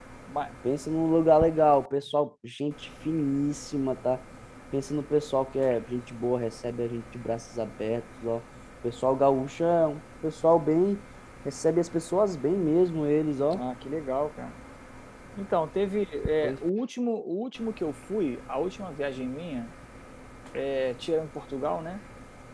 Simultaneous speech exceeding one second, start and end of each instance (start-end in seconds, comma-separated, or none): none